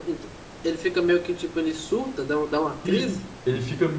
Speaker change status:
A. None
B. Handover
B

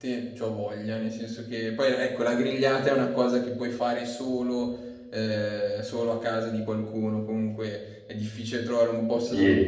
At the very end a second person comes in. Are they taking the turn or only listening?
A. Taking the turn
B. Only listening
B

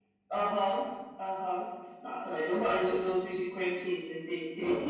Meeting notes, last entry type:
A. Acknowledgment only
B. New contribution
B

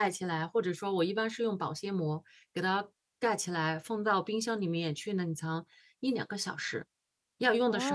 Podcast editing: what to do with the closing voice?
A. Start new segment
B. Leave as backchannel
A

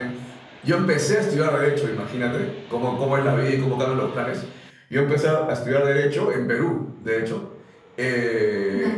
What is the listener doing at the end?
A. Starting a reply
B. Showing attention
B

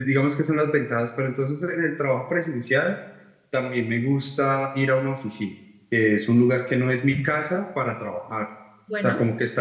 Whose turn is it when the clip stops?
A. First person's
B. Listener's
A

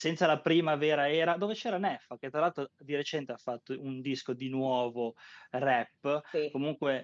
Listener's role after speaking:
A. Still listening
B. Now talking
A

